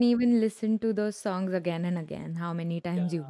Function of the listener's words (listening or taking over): taking over